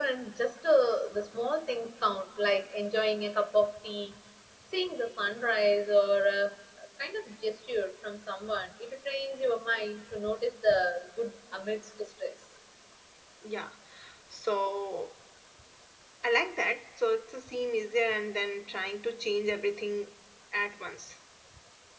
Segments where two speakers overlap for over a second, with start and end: none

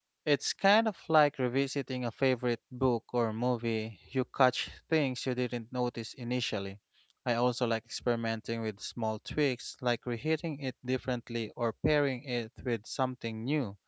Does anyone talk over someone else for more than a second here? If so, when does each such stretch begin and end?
none

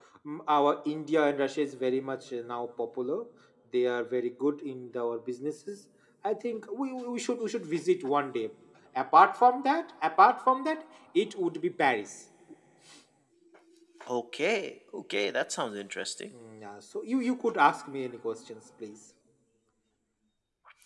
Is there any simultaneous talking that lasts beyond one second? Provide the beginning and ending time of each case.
none

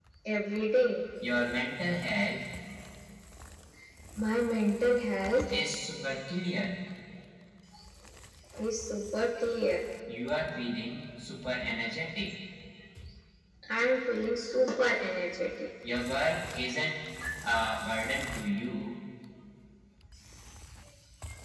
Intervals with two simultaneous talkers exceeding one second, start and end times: none

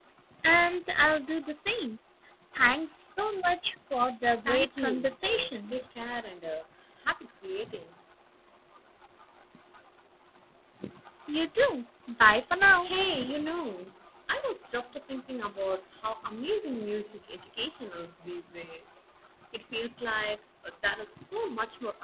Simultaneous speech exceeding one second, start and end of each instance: 4.4-5.8

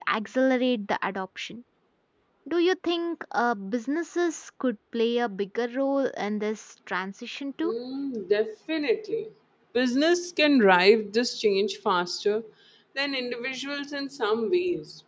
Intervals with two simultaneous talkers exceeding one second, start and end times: none

